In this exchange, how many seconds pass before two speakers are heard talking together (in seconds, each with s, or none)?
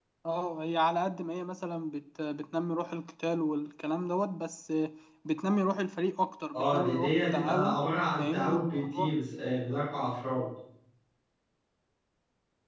6.5 s